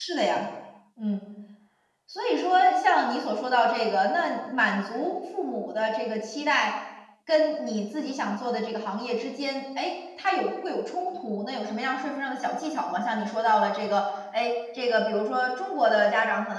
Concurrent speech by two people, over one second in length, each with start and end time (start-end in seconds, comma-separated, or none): none